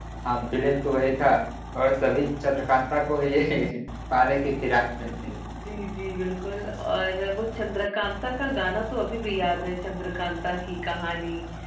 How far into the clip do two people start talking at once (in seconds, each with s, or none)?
none